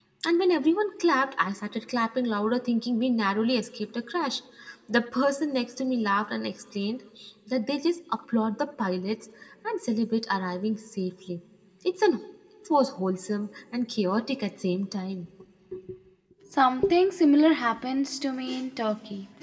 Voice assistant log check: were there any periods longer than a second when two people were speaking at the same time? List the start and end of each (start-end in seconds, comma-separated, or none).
none